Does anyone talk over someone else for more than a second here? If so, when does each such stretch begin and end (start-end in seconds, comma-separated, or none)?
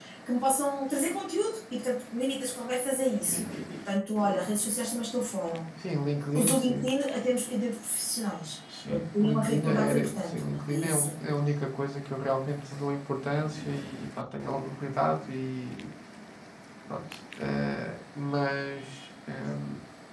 8.9-11.2